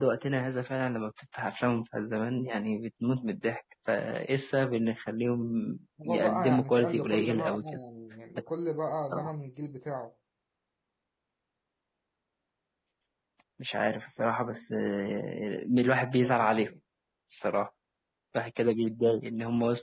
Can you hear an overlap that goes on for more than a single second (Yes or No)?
Yes